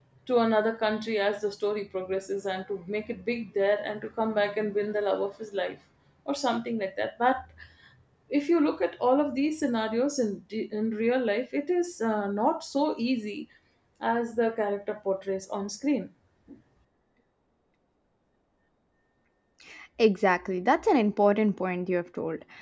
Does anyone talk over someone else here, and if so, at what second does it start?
none

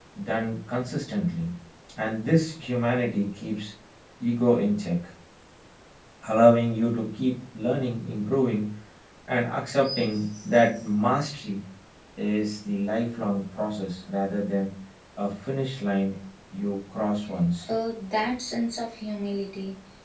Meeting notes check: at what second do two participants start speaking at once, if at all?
none

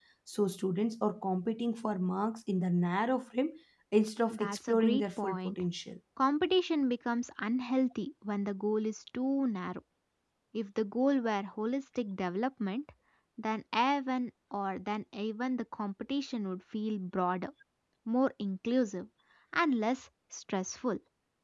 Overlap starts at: 4.3 s

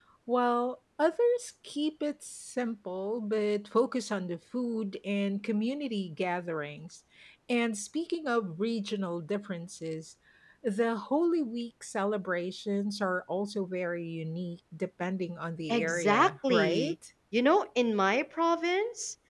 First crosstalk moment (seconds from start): 15.7 s

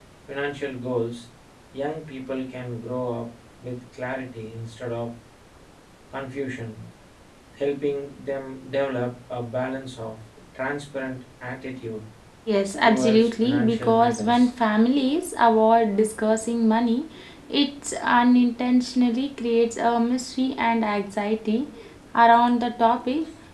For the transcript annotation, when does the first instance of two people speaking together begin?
12.8 s

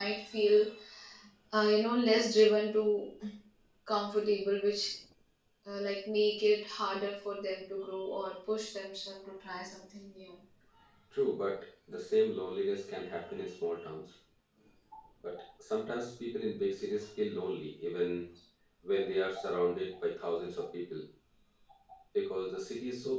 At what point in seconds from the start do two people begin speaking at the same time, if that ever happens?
none

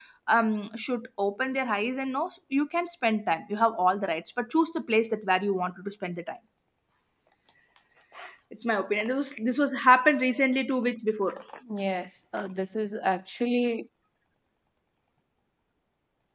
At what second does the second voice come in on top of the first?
none

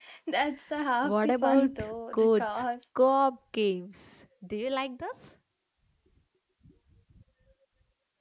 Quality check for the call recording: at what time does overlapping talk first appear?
1.0 s

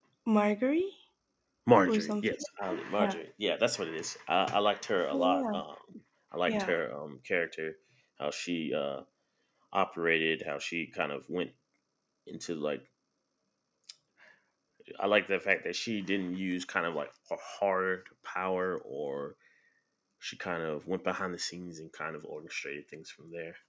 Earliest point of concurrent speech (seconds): 1.9 s

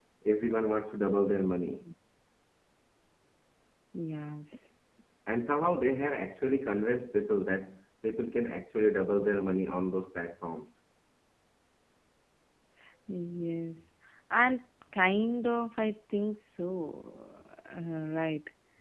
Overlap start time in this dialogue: none

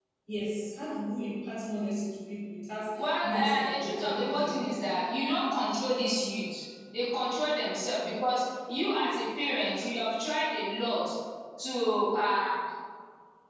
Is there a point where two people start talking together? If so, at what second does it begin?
3.0 s

